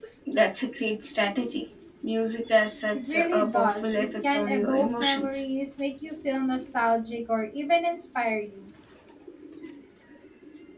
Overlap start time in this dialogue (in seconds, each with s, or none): 2.9 s